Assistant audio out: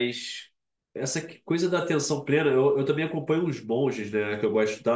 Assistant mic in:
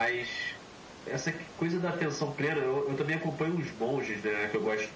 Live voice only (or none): none